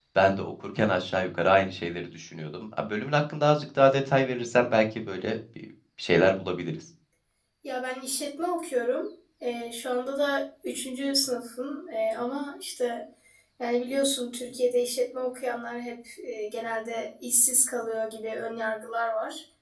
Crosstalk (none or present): none